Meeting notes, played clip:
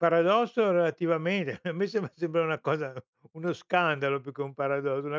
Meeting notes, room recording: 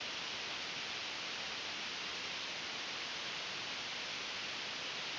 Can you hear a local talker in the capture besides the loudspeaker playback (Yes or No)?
No